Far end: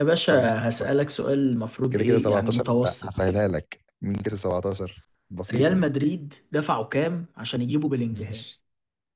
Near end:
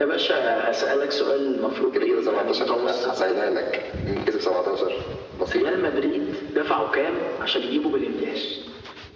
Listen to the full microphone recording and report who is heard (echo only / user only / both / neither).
echo only